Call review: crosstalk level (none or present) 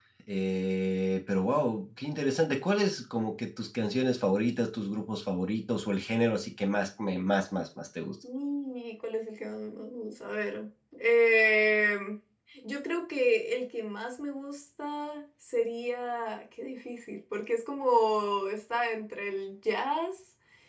none